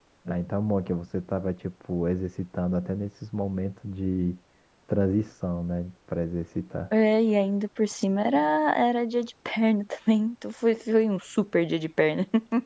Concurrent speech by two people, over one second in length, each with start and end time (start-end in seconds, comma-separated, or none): none